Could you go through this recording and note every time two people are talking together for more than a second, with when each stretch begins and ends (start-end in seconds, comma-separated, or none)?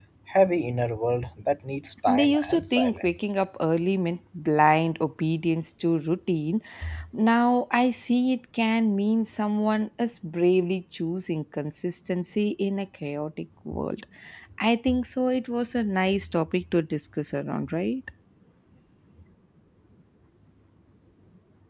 2.1-3.3